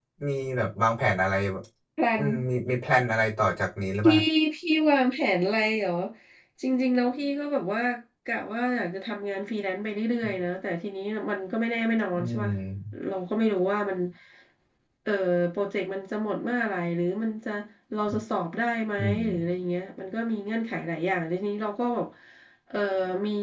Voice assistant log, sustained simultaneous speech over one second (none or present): none